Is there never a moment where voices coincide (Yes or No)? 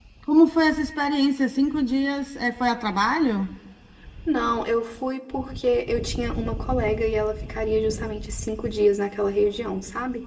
Yes